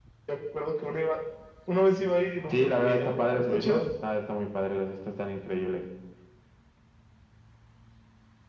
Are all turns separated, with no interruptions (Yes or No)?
No